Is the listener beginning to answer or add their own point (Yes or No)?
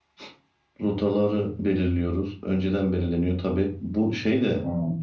No